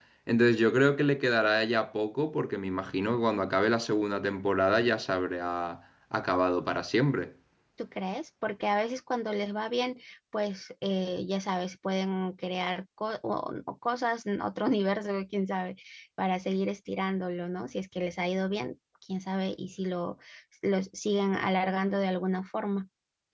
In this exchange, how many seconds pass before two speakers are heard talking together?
none

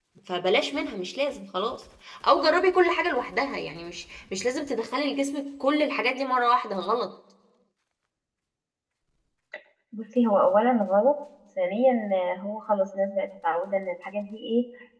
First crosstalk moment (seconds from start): none

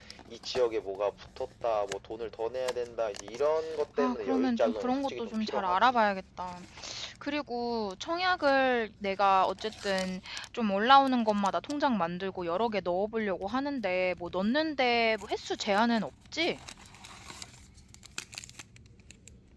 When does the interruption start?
4.0 s

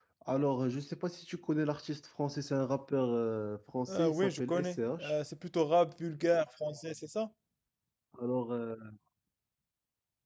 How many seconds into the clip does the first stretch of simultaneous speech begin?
3.9 s

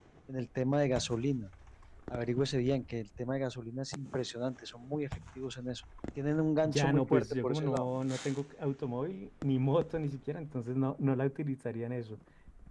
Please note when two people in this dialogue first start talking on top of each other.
6.6 s

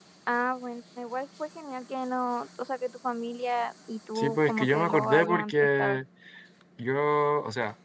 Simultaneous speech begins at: 4.2 s

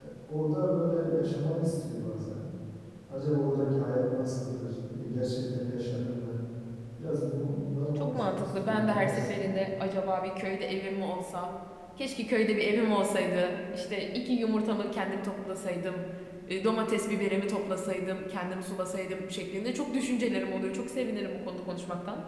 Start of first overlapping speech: 8.0 s

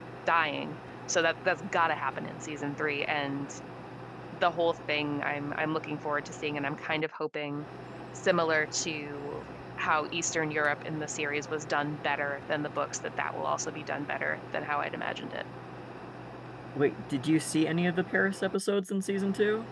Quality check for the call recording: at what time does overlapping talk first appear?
none

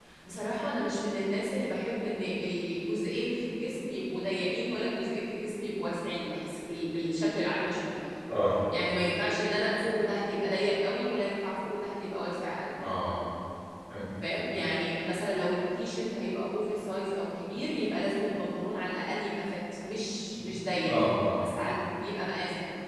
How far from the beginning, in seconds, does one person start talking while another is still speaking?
none

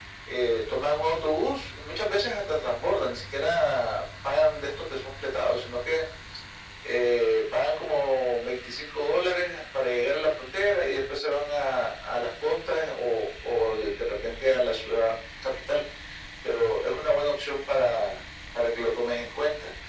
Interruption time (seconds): none

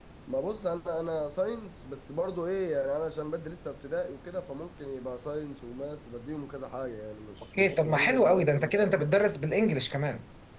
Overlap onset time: 7.5 s

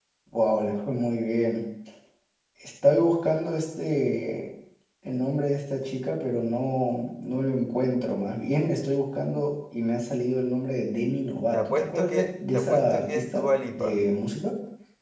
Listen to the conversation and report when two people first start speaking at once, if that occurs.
11.5 s

